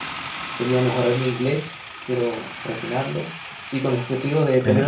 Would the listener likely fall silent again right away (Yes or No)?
Yes